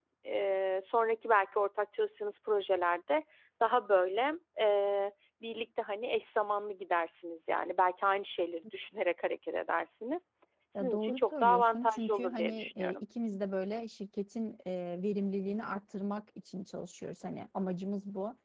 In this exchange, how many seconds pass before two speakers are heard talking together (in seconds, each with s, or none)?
10.8 s